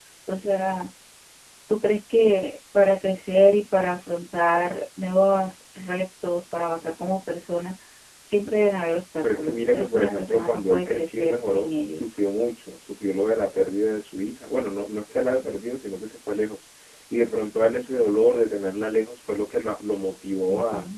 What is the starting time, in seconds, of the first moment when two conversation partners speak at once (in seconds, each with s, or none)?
9.3 s